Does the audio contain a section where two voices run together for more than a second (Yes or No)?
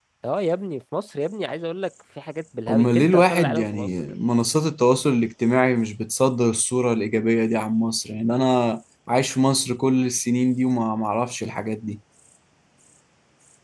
Yes